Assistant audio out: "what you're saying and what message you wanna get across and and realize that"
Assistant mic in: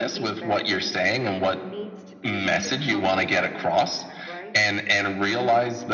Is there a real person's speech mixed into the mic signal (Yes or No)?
Yes